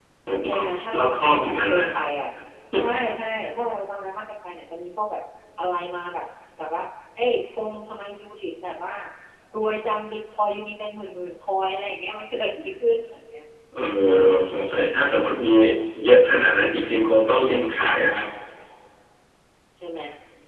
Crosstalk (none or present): present